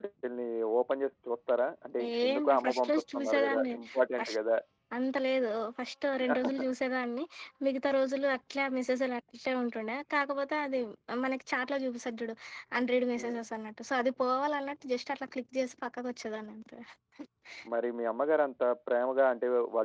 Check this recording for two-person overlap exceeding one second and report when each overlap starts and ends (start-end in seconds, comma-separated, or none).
2.1-3.7